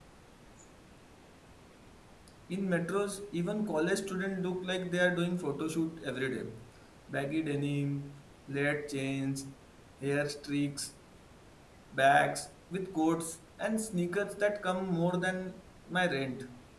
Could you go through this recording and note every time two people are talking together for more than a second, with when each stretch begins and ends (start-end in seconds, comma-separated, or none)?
none